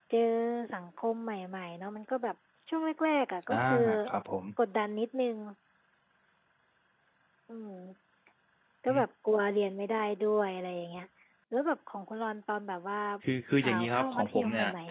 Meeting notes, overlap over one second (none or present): present